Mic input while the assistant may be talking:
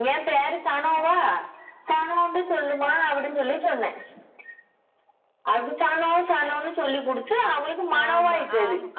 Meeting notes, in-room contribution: present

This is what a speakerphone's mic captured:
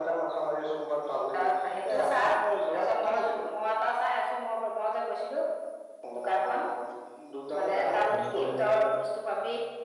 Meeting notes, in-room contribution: present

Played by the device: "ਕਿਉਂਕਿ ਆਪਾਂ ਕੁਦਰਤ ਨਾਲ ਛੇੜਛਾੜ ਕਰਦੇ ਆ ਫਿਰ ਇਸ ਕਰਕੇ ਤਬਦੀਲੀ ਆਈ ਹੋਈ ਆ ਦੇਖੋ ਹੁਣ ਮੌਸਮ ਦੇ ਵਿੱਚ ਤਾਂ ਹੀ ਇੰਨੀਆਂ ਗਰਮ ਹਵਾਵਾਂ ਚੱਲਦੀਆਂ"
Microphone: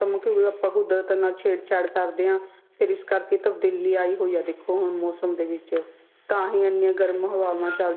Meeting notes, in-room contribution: none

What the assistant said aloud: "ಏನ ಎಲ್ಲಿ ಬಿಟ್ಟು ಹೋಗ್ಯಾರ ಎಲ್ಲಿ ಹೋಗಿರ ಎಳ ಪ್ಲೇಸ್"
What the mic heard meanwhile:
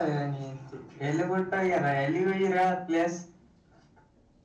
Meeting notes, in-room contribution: none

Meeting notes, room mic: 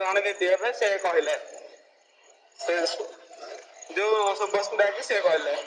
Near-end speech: none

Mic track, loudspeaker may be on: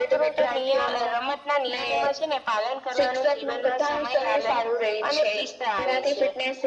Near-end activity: none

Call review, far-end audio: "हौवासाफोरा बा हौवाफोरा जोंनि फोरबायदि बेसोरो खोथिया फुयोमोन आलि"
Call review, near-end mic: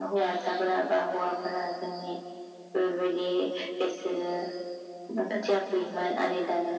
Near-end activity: none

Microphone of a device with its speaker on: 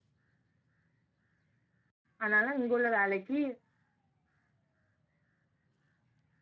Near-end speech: present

